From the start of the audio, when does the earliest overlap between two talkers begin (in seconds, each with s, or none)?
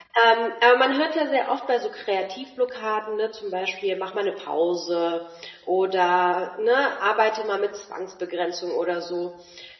none